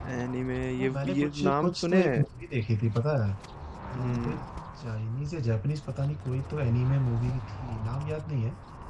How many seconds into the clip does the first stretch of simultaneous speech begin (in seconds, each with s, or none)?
0.8 s